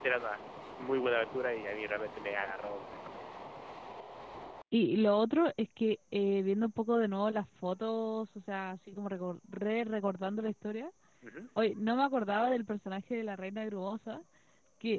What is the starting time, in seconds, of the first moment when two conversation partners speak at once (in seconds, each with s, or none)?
none